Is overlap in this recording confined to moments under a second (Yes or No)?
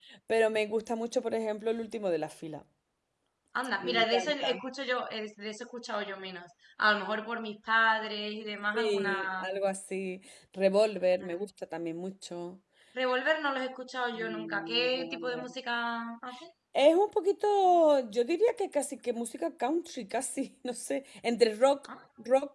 No